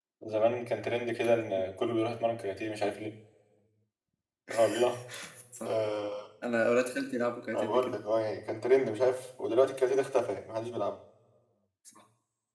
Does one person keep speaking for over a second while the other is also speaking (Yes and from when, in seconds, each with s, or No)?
No